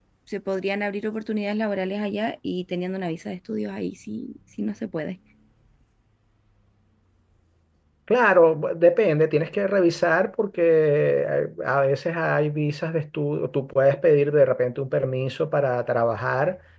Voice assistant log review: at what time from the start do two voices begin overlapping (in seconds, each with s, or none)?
none